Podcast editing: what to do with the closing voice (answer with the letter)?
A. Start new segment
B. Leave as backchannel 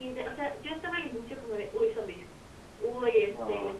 B